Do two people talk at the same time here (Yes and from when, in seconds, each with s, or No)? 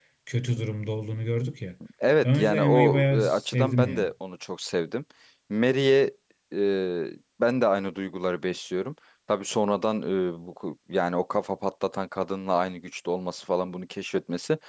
Yes, from 2.2 s